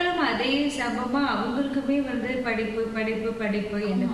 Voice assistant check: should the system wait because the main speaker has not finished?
Yes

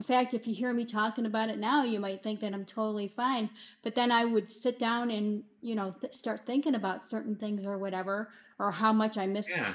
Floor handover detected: No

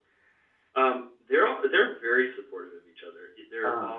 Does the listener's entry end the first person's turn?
No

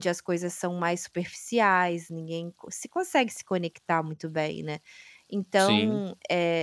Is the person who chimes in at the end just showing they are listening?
Yes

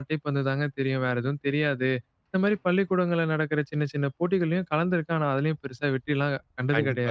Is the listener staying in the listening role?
No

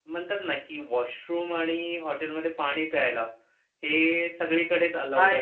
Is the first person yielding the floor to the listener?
Yes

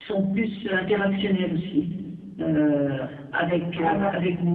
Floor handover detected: No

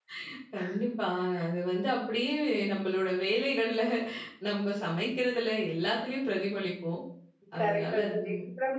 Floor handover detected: Yes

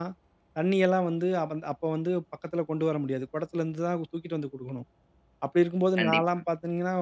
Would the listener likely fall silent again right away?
Yes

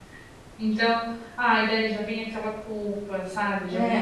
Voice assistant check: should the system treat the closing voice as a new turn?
Yes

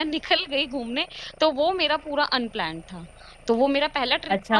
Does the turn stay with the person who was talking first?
No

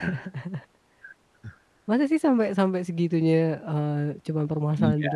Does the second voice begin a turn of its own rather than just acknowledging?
Yes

